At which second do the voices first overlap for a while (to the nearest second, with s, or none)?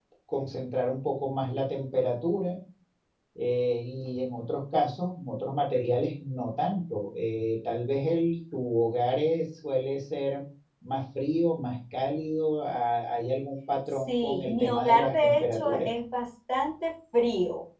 14 s